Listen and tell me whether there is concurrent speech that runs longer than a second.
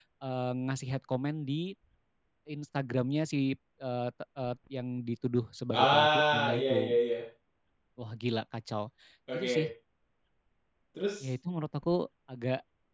Yes, from 5.7 s

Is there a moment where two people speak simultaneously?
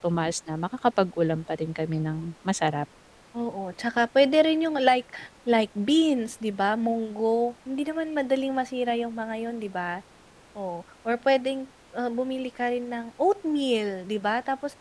No

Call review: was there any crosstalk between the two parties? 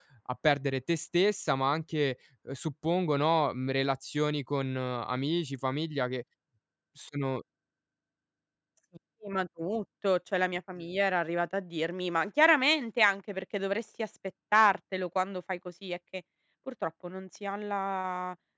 No

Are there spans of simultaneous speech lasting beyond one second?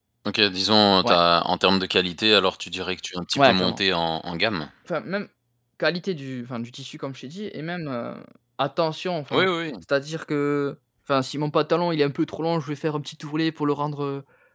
No

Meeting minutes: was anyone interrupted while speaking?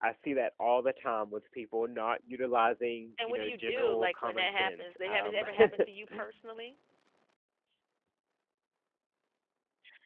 Yes, from 3.2 s

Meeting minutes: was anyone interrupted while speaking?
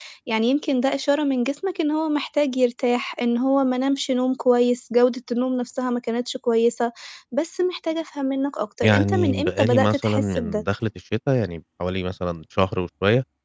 Yes, from 8.8 s

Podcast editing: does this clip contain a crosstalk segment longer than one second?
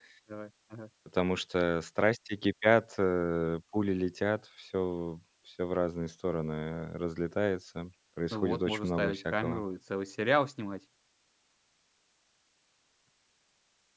Yes, from 8.3 s

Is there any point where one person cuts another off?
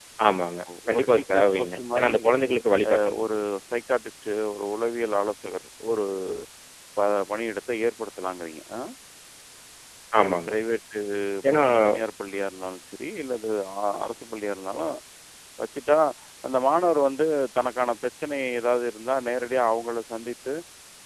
Yes, from 0.9 s

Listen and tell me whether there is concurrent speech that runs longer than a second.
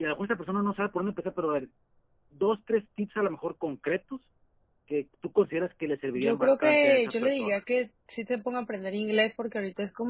Yes, from 6.2 s

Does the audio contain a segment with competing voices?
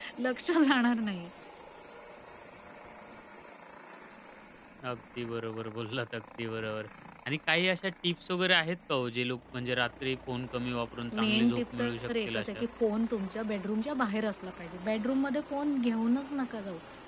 Yes, from 11.1 s

